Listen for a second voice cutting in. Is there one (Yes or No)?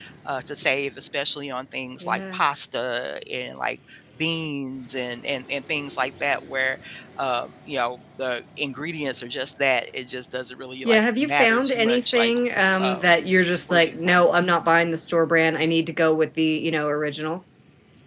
Yes